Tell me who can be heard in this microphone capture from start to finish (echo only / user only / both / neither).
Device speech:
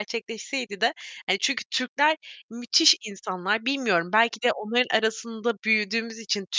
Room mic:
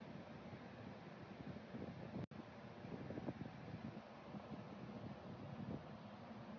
neither